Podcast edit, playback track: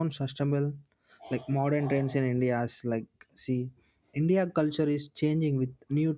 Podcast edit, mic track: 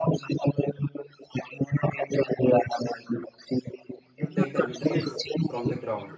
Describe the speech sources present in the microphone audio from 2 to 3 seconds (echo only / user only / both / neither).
echo only